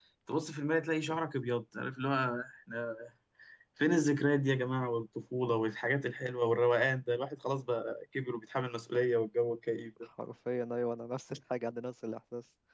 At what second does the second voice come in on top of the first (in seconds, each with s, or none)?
none